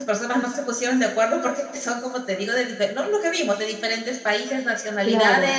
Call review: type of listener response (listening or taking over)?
listening